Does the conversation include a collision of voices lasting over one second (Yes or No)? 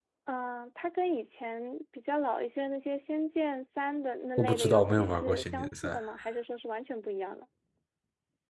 Yes